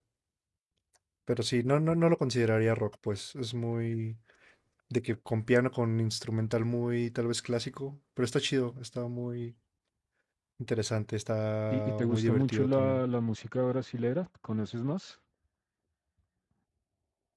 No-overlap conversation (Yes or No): No